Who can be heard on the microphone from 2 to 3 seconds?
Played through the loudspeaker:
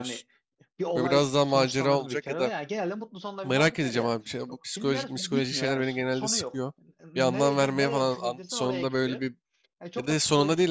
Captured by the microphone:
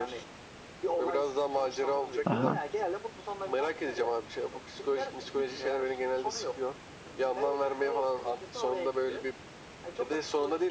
both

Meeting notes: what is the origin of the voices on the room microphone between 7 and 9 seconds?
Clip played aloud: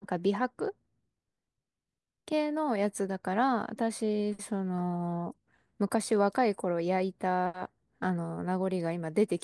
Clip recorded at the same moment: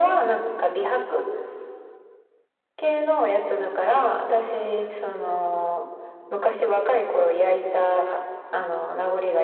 echo only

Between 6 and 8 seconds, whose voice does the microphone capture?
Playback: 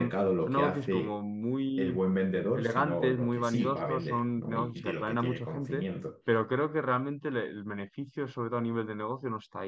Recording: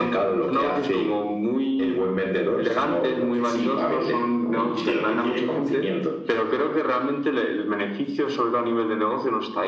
echo only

